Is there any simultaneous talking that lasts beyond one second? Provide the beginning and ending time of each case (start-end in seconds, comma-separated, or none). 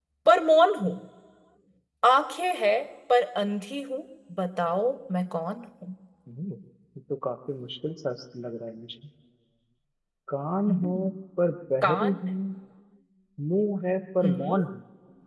none